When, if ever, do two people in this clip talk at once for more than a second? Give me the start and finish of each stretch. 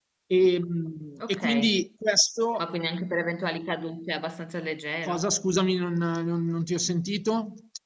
none

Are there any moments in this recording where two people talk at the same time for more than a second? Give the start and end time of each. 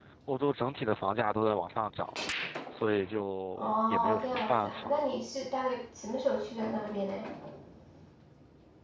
3.6-5.0

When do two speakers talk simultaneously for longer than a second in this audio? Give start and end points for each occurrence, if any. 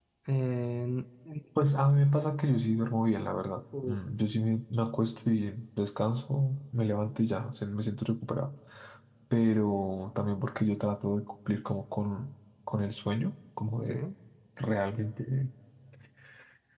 none

